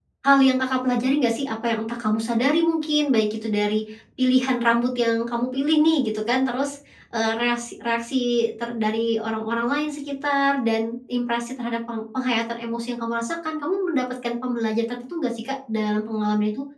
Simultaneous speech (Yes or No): No